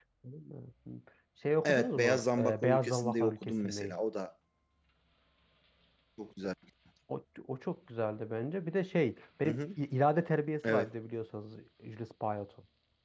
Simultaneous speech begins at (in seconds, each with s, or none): 1.6 s